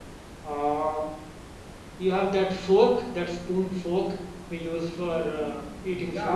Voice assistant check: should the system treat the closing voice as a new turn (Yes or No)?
Yes